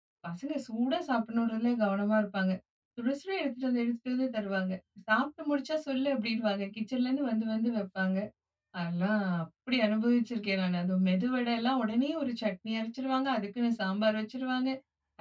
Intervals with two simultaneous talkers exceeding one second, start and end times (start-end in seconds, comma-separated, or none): none